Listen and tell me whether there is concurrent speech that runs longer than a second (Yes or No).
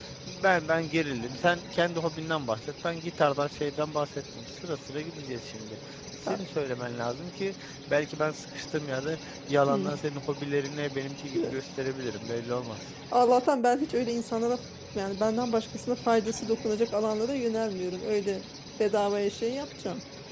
No